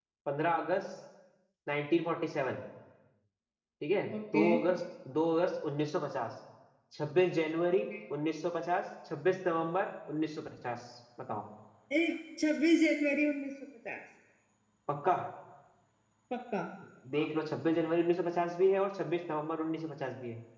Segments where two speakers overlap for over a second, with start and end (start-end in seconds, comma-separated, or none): none